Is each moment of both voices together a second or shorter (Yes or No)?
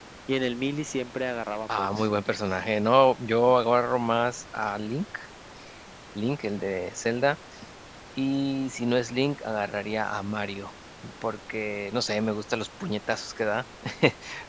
Yes